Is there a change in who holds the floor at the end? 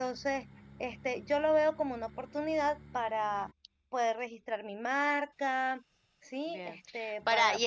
Yes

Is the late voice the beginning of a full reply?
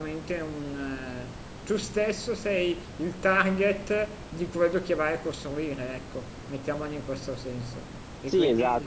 Yes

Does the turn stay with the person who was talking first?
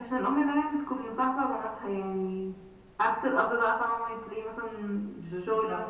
Yes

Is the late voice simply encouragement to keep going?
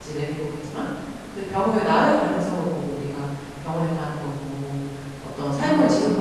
Yes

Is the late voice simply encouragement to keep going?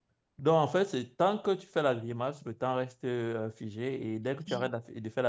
Yes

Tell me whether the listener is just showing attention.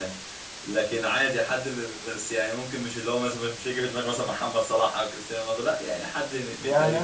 No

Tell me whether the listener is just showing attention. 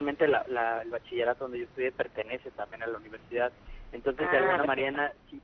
Yes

